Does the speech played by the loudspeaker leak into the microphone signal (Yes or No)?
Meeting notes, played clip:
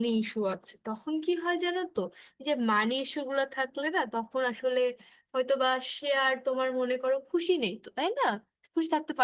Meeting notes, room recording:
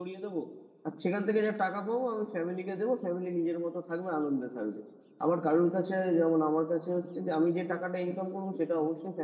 No